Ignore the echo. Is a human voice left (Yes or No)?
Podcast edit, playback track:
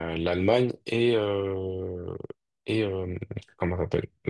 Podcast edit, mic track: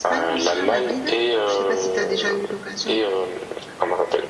Yes